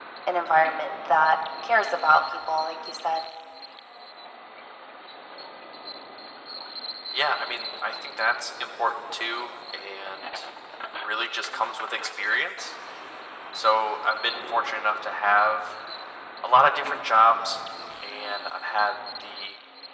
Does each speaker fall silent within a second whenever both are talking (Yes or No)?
Yes